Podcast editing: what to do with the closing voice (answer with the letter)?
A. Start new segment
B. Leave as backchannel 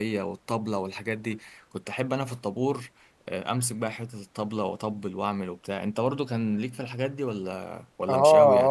A